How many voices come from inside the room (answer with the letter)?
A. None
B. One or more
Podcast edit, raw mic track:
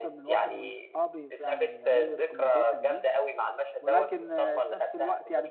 B